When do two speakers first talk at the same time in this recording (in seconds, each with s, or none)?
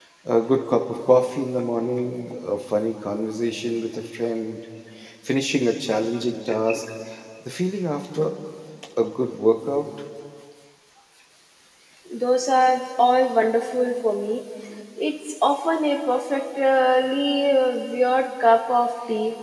none